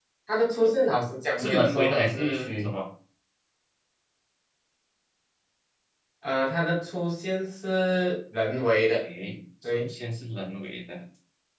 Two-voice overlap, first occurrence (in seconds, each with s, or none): 1.4 s